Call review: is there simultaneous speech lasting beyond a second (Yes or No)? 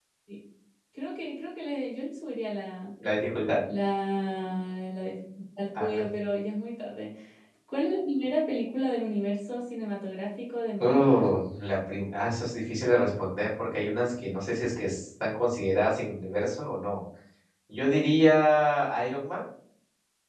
No